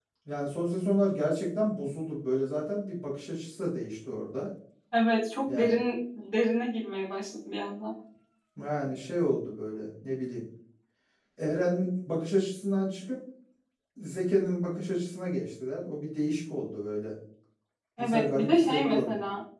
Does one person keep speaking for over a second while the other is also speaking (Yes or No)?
Yes